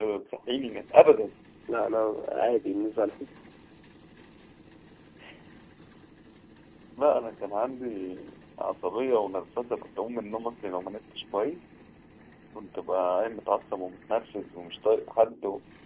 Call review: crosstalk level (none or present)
none